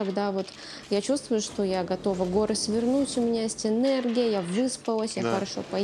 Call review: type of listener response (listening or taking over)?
listening